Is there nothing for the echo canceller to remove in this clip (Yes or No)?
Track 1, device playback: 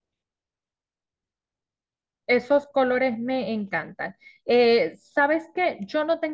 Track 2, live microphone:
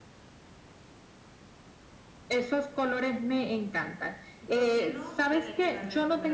No